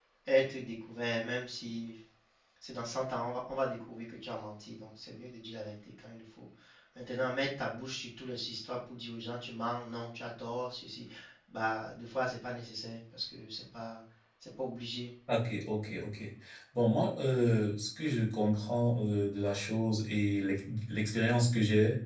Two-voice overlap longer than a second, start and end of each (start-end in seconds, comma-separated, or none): none